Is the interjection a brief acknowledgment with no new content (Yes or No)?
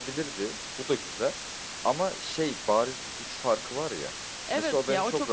No